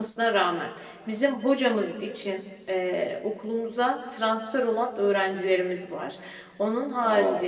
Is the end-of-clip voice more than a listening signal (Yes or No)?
No